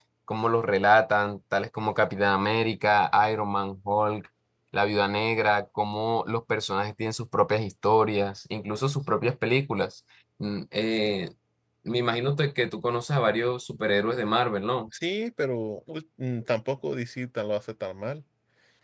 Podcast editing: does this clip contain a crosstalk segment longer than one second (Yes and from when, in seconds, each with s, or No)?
No